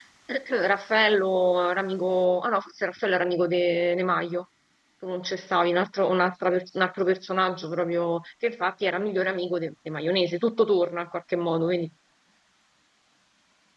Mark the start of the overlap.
none

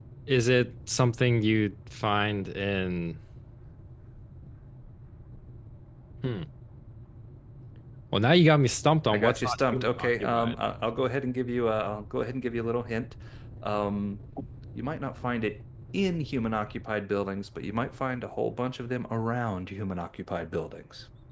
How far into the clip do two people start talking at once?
9.1 s

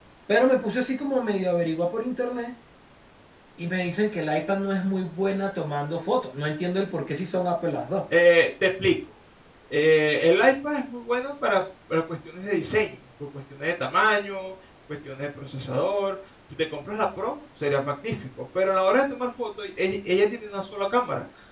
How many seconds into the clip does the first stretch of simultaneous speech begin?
none

